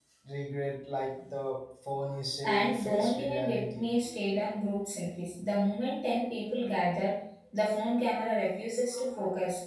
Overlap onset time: 2.4 s

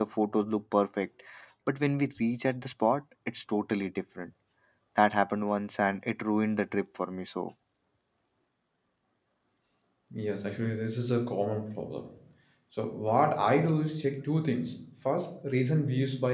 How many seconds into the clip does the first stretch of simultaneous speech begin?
none

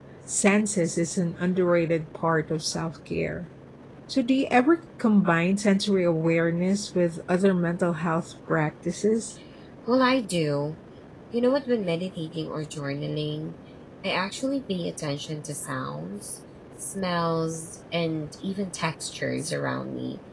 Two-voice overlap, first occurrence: none

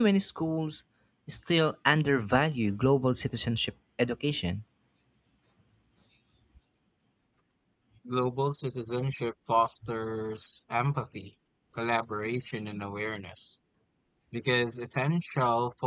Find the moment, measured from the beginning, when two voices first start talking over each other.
none

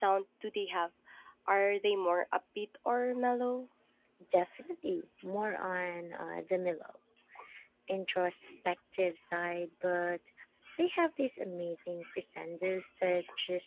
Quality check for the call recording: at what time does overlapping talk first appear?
none

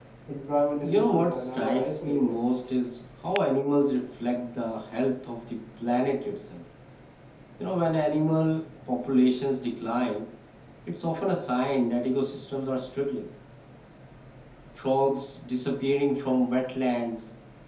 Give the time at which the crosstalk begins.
0.8 s

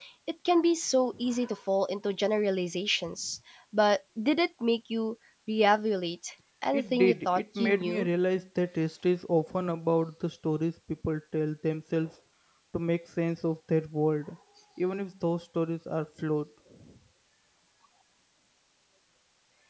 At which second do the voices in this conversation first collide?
6.7 s

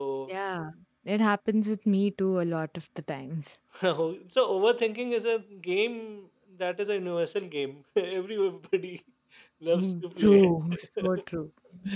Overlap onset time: 9.7 s

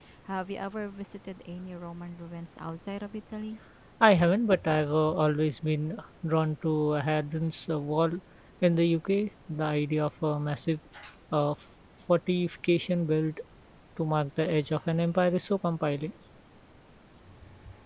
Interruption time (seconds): none

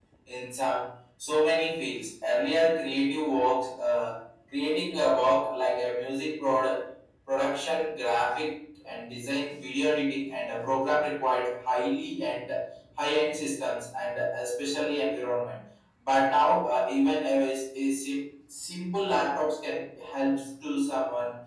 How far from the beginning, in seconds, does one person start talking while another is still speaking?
none

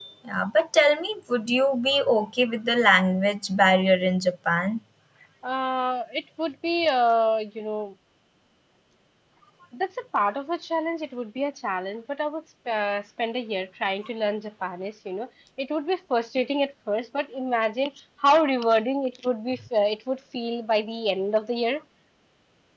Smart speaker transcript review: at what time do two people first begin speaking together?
none

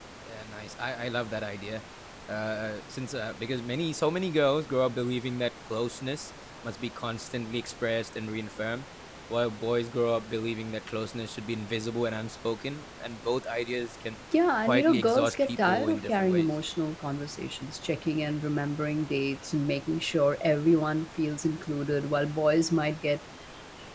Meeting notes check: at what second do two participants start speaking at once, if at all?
14.3 s

